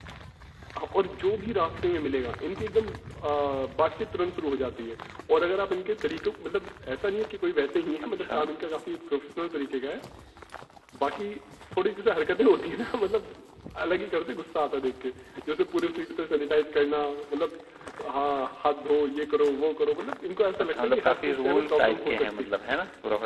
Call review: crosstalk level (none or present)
present